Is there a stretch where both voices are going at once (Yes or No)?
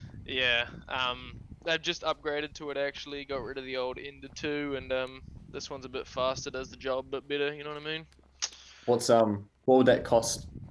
No